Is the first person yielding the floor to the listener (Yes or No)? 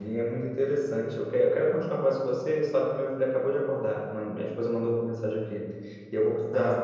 No